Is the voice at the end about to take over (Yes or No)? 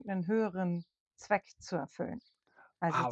No